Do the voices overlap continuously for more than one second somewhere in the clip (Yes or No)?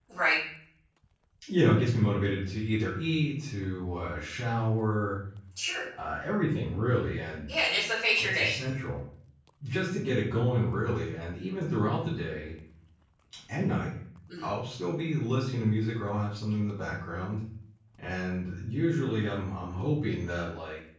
No